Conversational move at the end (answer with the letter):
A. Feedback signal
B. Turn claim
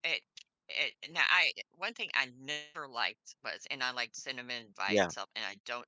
A